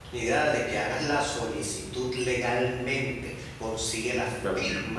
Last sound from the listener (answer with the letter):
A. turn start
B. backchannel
B